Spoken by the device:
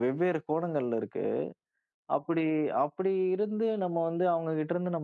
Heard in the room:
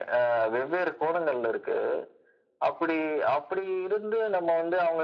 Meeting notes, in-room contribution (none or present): none